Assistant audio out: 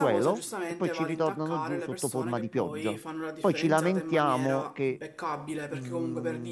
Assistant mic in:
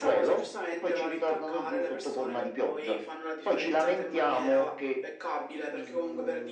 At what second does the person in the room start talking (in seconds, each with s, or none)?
none